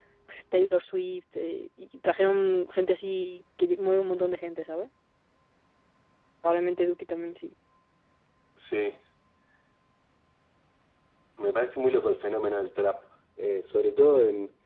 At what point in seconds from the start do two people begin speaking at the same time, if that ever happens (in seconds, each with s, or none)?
none